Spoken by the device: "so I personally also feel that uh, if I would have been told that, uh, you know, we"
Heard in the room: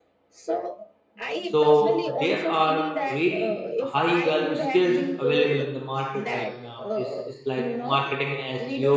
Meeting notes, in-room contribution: present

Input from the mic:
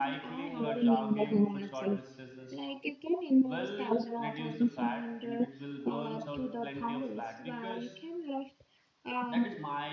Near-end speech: present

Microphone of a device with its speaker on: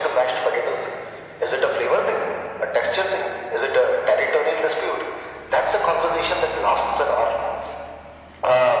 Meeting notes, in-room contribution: none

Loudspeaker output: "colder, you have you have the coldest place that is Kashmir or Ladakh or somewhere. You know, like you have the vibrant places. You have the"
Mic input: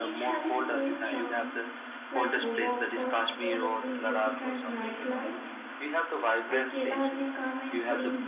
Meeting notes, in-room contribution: present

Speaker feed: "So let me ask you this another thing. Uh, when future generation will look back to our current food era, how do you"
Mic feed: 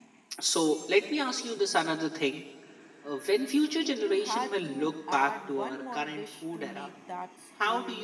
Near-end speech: present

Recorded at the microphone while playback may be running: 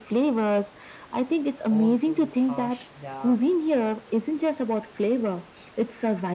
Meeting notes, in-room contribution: present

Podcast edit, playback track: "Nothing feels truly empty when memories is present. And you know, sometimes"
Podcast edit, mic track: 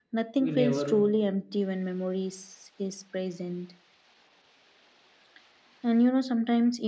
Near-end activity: present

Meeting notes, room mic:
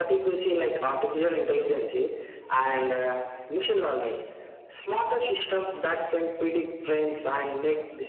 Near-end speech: none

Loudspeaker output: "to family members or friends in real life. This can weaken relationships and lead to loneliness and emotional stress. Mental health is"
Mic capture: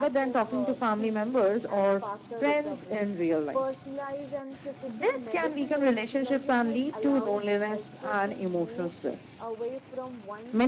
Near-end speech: present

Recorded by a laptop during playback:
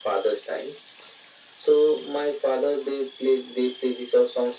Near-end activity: none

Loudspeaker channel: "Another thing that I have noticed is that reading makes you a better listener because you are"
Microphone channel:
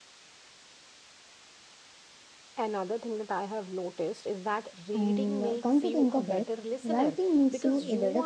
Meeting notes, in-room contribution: present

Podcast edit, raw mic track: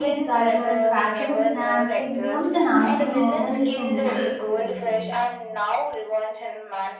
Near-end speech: present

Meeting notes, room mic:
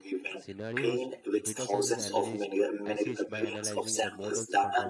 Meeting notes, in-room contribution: present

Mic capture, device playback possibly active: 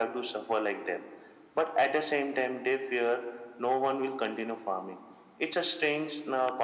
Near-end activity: none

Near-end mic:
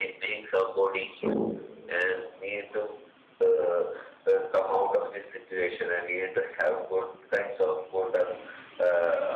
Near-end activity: present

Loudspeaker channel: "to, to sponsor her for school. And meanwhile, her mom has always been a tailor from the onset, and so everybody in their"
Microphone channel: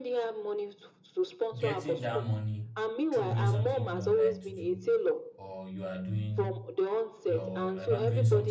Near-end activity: present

